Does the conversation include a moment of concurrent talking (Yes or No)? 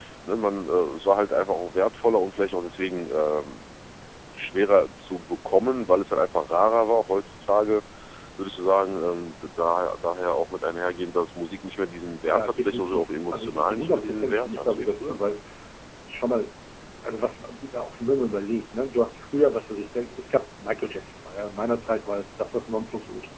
Yes